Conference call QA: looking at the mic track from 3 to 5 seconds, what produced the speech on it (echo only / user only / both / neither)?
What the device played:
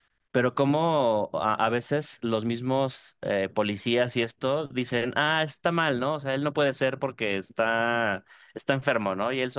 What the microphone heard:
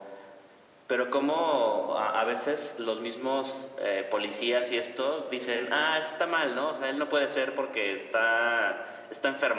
echo only